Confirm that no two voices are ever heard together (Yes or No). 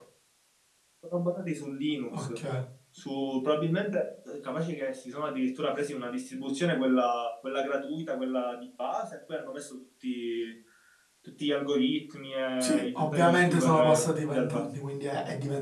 No